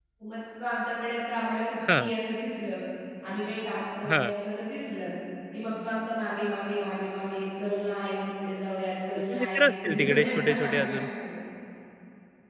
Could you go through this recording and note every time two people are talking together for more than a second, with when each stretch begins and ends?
9.3-11.0

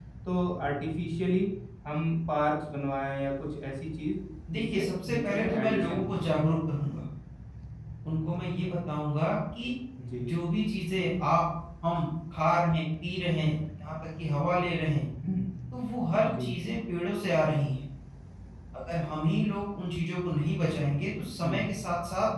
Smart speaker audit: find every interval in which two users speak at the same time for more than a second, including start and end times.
4.5-6.2

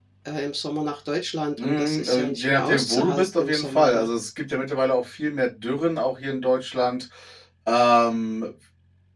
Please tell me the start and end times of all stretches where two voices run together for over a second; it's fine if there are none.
1.6-4.1

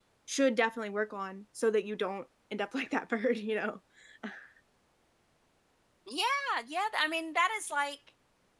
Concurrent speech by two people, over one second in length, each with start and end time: none

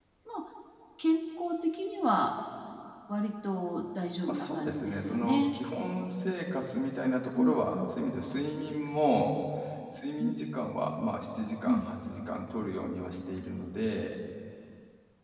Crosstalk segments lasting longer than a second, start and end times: 4.3-5.6

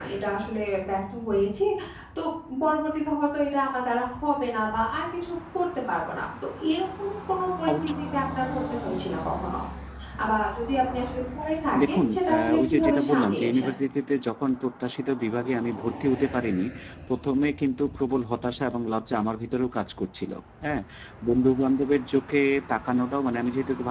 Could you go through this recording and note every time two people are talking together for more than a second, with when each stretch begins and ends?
11.9-13.7

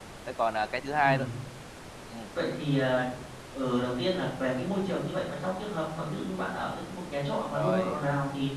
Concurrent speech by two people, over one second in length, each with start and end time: none

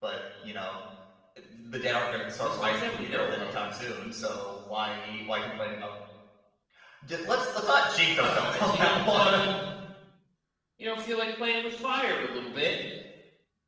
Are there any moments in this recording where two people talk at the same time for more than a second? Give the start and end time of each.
2.4-3.6, 8.1-9.5

